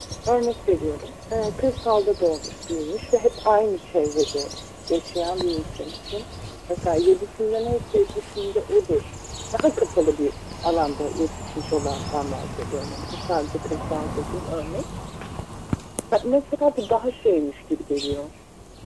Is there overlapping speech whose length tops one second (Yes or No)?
No